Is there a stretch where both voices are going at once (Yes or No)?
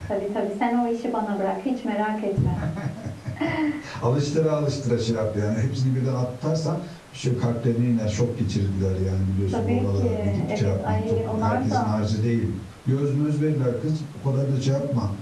Yes